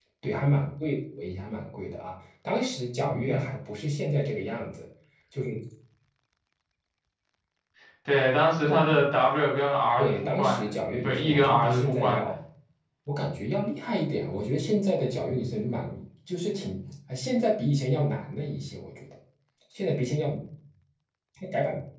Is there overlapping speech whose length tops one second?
Yes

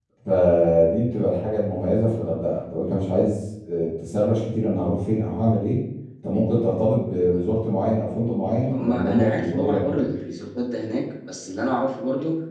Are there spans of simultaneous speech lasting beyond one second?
Yes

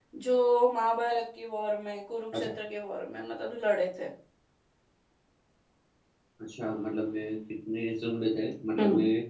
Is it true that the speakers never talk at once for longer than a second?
Yes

